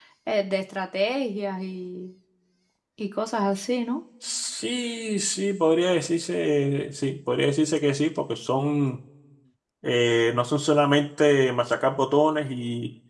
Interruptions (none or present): none